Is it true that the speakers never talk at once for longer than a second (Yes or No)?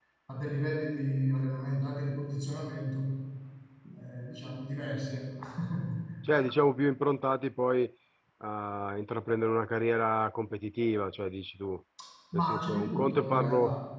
No